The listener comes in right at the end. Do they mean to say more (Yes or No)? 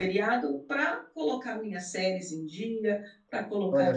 No